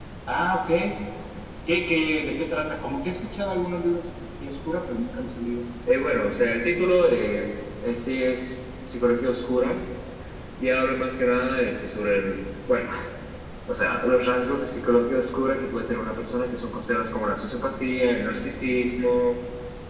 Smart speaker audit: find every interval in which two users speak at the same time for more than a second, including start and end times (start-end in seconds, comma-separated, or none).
none